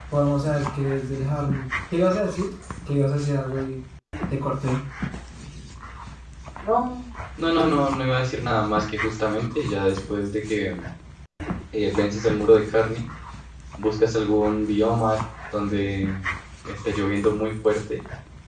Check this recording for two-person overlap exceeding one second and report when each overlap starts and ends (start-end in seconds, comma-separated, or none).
none